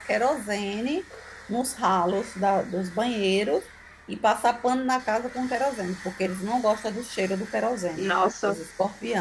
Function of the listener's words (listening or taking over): listening